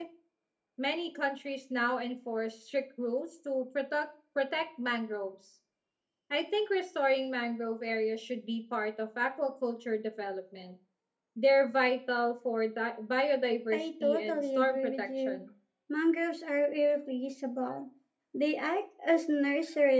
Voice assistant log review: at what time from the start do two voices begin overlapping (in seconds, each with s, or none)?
13.7 s